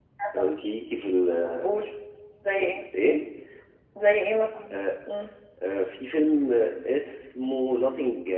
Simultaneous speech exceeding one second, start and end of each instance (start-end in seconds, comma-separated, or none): none